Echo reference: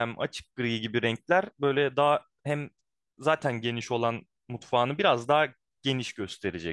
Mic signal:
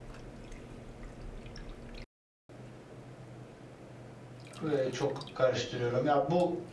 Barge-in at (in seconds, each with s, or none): 4.6 s